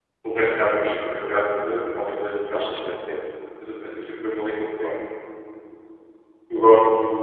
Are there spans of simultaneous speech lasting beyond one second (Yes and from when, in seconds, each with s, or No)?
No